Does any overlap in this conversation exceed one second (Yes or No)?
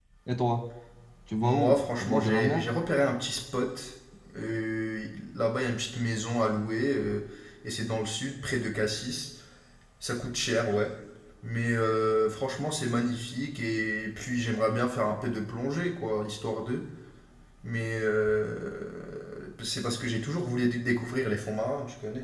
Yes